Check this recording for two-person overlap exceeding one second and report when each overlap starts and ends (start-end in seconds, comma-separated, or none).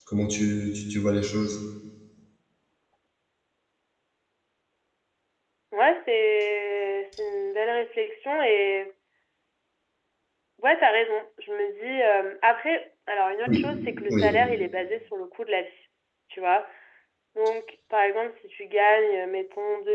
none